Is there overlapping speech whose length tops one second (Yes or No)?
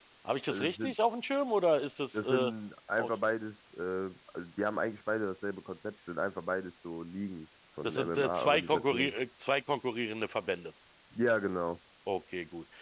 Yes